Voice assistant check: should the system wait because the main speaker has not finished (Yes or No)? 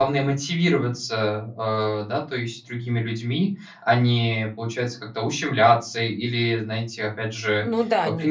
No